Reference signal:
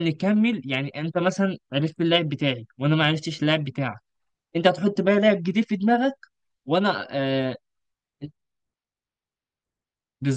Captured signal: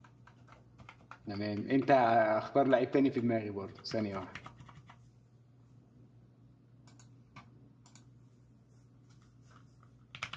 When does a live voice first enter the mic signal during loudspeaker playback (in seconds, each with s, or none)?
1.2 s